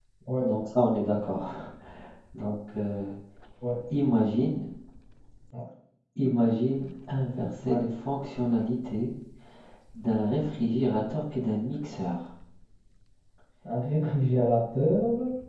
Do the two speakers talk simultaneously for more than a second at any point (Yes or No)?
No